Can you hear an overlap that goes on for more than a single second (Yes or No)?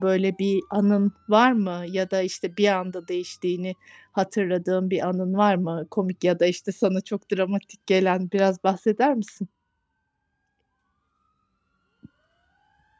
No